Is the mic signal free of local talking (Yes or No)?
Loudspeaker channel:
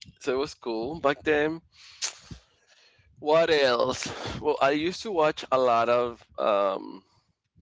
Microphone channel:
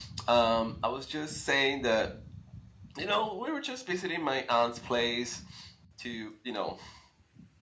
No